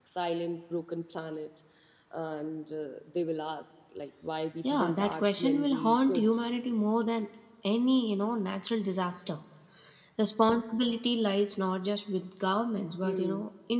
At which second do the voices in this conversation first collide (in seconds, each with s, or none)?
4.6 s